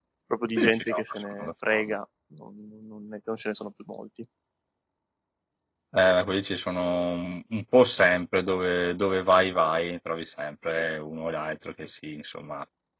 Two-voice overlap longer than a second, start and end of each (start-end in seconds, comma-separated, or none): 0.6-1.9